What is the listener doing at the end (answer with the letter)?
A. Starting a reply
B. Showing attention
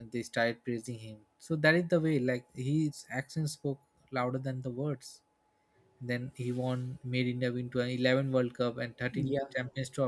B